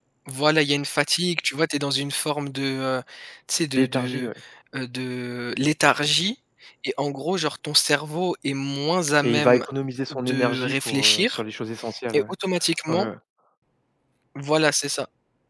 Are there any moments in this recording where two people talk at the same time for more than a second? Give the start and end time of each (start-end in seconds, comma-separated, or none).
10.1-11.4